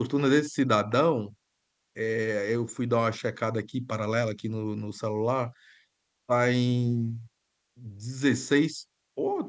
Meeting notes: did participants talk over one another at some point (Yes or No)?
No